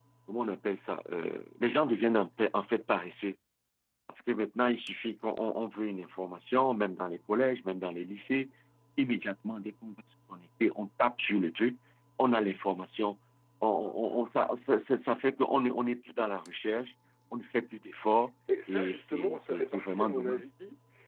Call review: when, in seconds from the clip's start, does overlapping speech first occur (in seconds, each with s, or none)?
18.5 s